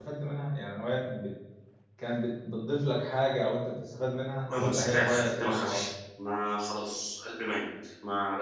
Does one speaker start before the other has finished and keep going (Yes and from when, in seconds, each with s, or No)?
Yes, from 4.5 s